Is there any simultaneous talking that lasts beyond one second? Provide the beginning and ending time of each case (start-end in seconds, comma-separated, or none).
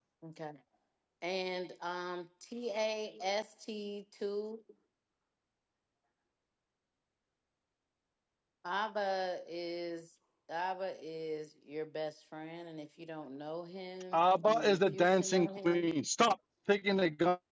14.1-15.9